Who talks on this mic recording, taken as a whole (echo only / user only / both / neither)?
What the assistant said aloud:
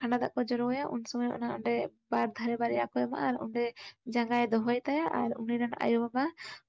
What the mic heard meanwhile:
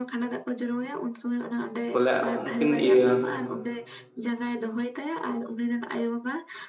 both